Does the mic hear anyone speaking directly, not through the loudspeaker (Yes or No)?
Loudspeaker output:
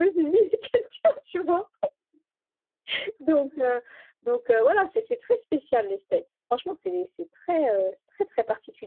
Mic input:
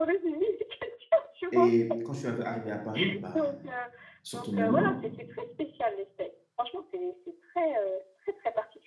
Yes